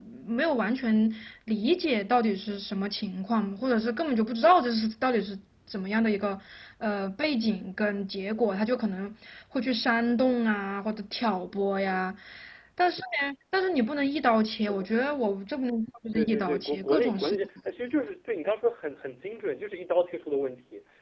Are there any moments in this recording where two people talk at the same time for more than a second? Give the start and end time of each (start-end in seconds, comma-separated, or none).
16.1-17.4